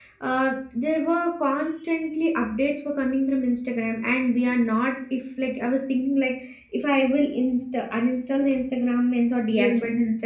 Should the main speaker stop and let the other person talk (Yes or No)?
No